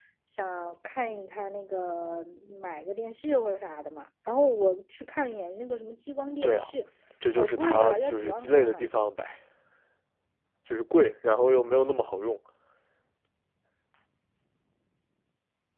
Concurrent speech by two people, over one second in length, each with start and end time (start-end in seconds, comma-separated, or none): 7.4-8.9